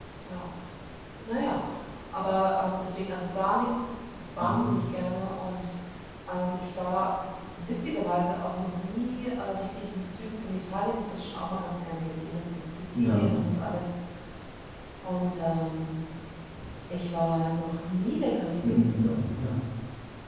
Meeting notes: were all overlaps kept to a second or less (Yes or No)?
Yes